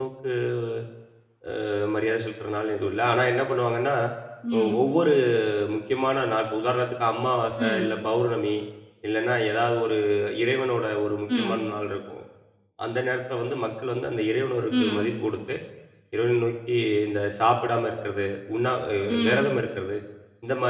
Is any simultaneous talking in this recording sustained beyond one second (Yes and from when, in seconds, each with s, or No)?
No